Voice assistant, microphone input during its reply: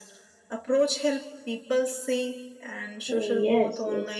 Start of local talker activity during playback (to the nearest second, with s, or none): 3 s